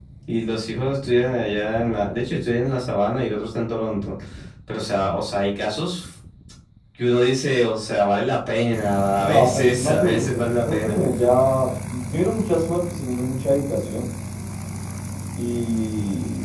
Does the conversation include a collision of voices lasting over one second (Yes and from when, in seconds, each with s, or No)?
Yes, from 9.2 s